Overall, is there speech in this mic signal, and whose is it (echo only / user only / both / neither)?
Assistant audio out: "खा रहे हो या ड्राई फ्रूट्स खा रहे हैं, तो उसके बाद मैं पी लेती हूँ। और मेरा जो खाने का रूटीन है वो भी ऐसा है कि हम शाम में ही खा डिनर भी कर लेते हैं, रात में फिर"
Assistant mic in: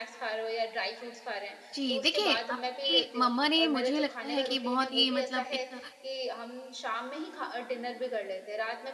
both